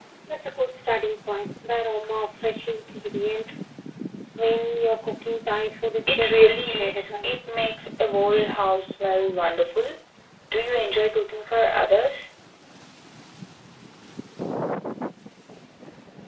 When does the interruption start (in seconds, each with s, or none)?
6.1 s